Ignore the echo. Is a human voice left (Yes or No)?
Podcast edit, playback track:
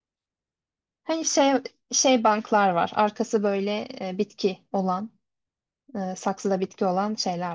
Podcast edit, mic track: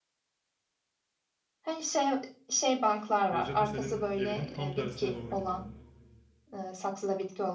Yes